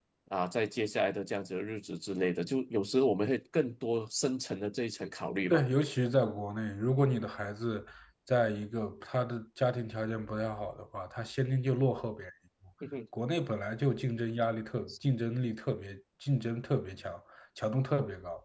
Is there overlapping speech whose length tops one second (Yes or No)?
No